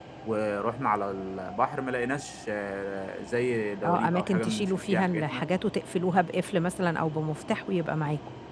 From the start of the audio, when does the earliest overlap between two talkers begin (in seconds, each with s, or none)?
3.8 s